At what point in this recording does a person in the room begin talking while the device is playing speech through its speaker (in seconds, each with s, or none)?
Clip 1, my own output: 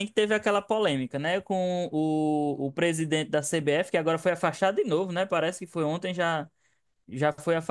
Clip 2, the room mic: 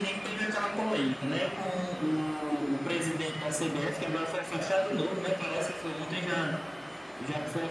none